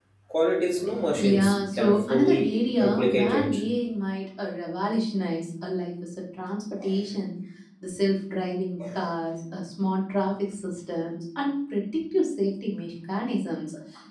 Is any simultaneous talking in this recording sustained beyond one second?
Yes, from 1.2 s

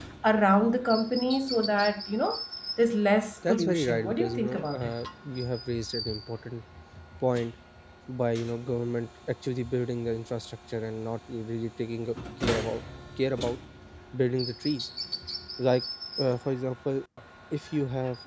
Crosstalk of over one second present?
Yes, from 3.4 s

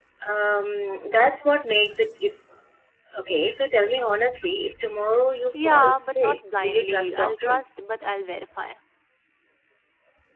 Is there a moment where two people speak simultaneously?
Yes, from 5.5 s

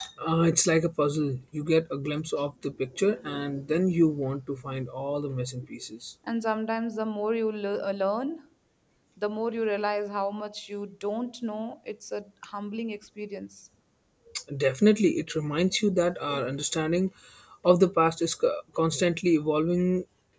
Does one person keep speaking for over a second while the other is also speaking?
No

